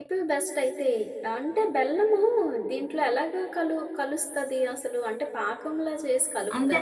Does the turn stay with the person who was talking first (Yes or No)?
No